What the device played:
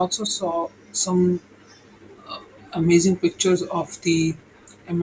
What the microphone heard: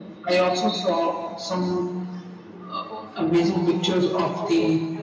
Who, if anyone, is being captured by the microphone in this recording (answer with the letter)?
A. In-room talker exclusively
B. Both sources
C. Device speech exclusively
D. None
B